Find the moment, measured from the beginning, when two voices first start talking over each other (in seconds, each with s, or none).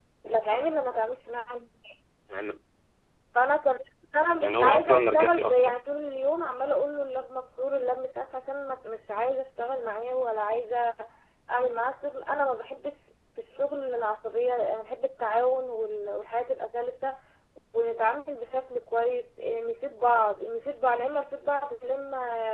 4.4 s